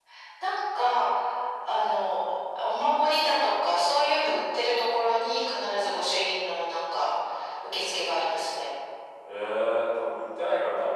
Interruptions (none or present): none